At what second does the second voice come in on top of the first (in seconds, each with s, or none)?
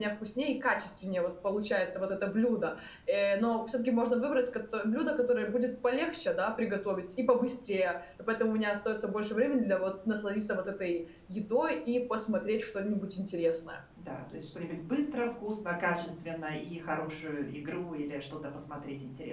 none